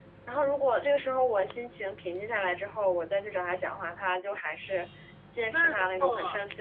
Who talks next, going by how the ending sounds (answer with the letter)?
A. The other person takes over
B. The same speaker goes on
A